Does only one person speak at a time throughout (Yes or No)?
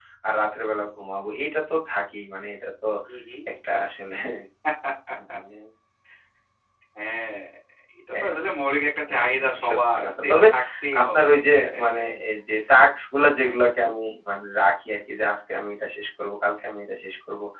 No